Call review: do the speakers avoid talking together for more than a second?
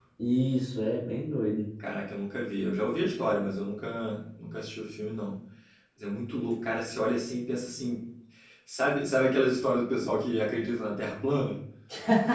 Yes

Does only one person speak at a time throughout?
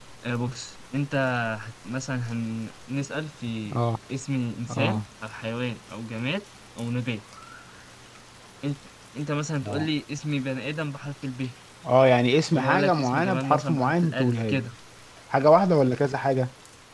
No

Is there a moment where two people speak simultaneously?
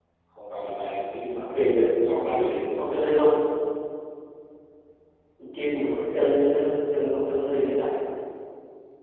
Yes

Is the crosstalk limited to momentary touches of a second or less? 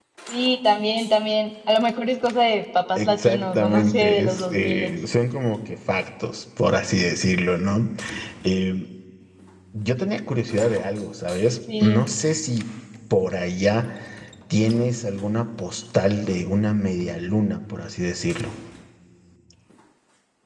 No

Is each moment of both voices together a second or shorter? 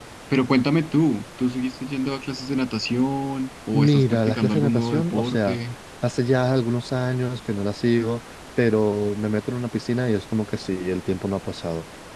No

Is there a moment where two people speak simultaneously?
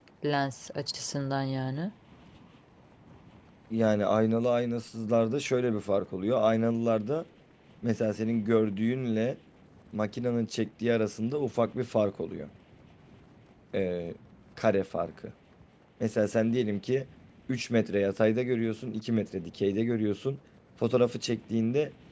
No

